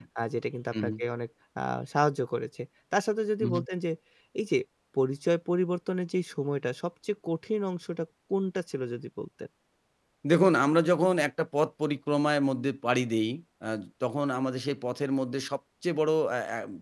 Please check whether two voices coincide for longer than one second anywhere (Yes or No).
No